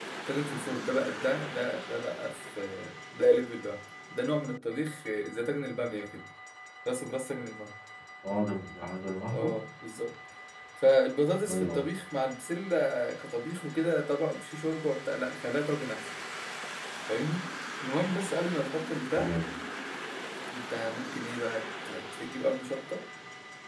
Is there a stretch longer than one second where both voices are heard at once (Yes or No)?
No